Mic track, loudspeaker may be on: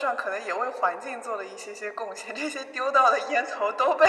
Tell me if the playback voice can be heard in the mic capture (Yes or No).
Yes